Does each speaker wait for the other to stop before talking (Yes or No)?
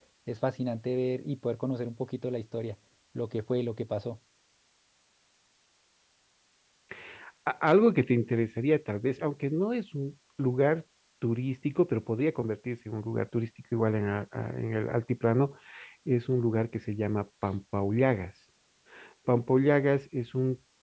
Yes